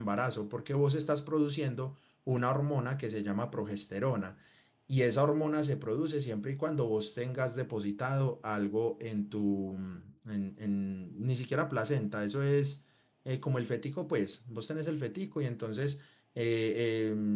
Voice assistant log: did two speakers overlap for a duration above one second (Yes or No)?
No